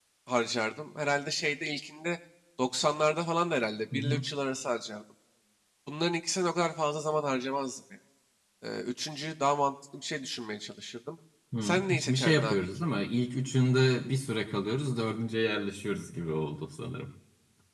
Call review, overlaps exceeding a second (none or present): present